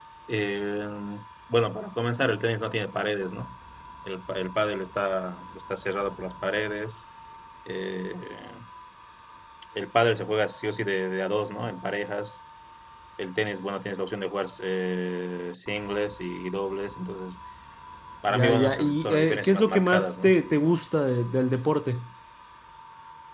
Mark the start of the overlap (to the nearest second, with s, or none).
18 s